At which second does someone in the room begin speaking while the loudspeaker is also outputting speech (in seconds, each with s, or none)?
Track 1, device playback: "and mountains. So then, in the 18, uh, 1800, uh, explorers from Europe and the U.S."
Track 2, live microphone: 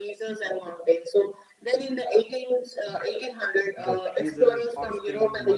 3.8 s